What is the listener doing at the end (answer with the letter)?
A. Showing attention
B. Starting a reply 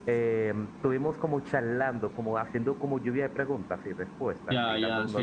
B